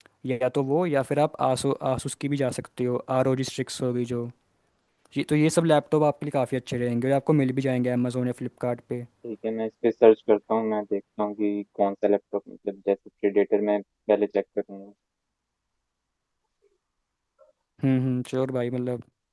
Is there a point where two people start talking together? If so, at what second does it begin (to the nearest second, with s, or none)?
none